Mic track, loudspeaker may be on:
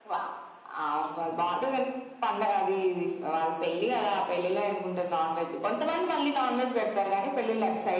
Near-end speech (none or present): none